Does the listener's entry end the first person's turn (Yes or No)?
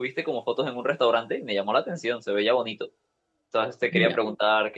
No